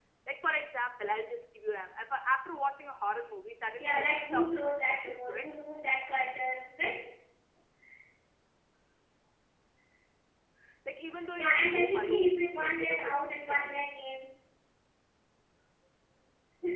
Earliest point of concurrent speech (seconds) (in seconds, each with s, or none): 3.8 s